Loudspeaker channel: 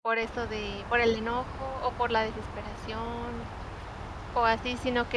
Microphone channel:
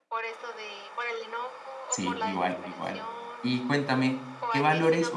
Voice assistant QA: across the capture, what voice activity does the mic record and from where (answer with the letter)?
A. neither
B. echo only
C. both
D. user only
C